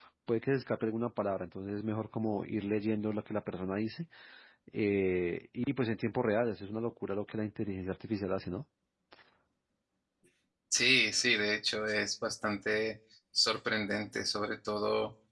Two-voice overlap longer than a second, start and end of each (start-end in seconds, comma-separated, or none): none